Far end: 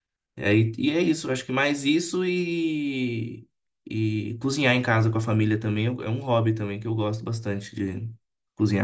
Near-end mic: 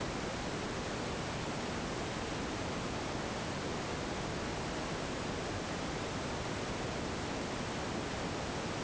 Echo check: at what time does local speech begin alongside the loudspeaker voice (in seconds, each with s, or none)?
none